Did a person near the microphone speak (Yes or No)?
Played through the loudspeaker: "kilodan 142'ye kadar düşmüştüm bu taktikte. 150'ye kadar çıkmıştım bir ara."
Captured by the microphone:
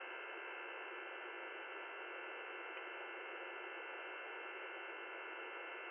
No